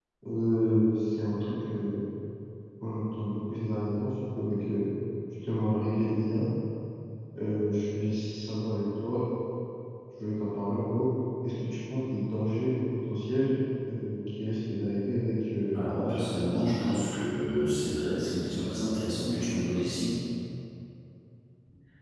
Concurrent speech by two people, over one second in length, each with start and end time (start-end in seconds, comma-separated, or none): 15.7-17.1